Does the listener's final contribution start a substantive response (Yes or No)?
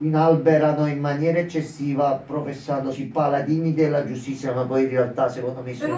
Yes